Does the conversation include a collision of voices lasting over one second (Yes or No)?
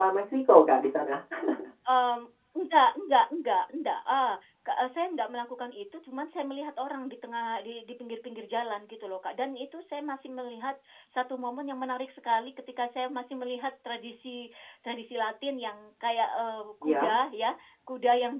No